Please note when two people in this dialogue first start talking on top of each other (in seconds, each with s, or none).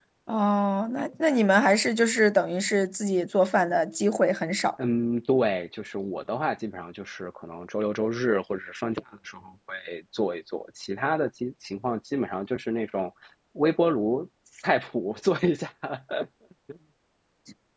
none